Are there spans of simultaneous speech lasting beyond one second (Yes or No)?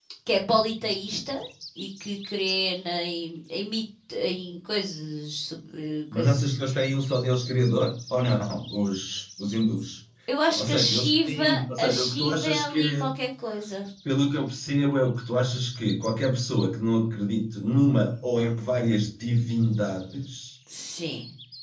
Yes